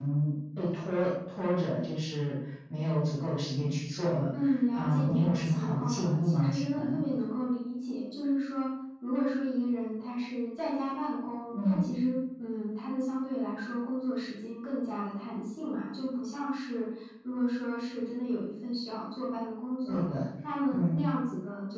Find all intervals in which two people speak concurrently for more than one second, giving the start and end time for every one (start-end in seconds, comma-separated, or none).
4.7-7.0